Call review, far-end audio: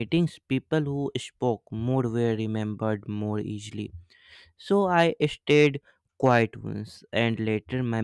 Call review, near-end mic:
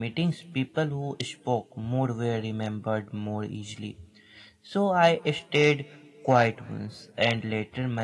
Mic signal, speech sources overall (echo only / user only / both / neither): echo only